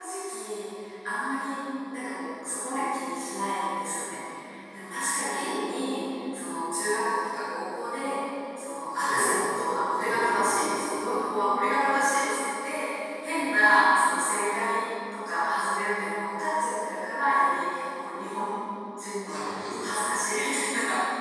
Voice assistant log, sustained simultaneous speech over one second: present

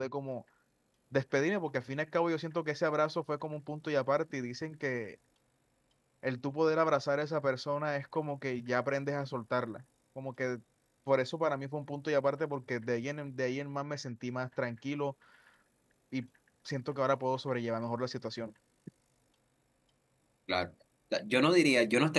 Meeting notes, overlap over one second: none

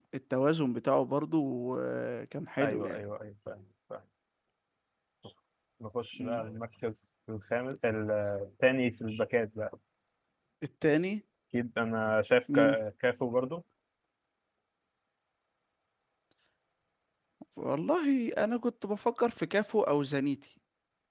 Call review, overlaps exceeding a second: none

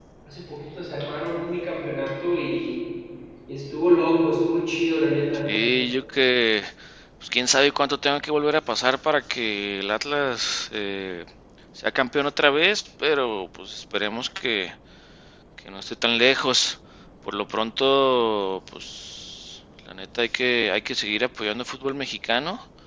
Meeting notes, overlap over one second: none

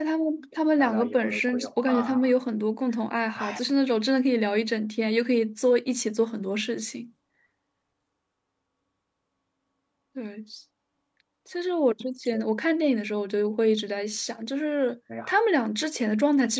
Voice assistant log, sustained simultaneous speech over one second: present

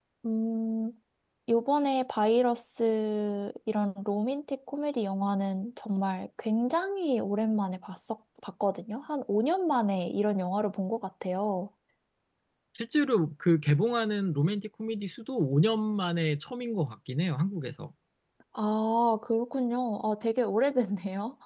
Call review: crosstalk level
none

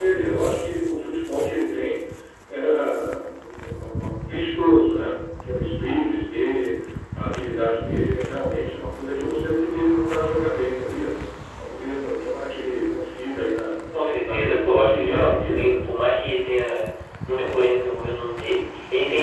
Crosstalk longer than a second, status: present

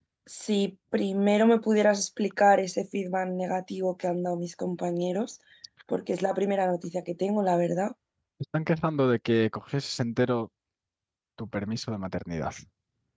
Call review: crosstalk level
none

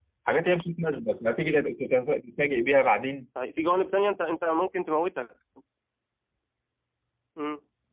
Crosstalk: none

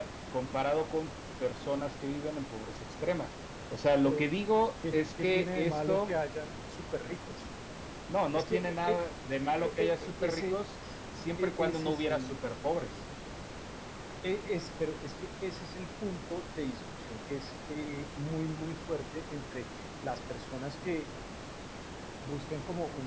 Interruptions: present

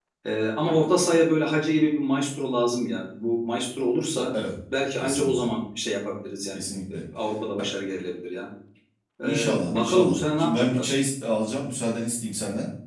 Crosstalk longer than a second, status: present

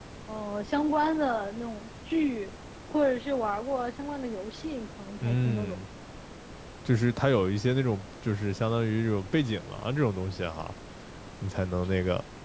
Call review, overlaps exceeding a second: none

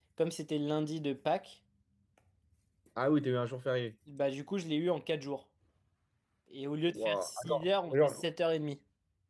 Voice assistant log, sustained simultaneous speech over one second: present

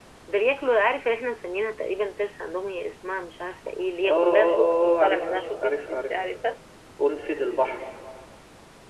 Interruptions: present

